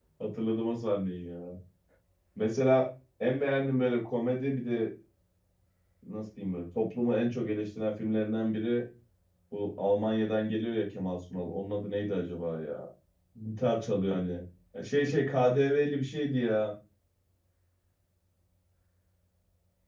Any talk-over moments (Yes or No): No